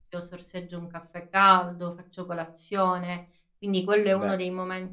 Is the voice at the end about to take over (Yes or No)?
No